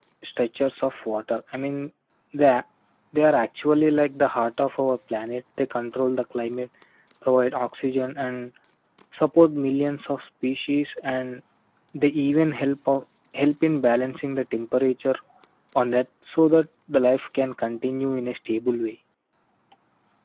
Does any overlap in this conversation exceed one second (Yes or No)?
No